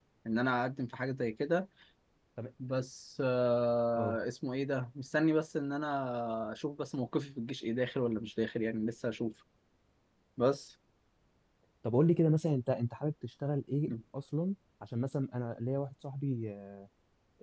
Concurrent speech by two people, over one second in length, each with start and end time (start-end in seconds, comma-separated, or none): none